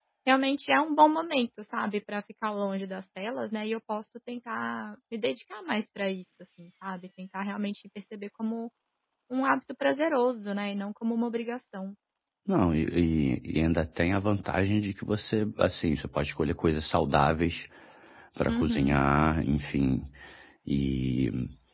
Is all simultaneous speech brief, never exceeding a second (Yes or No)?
Yes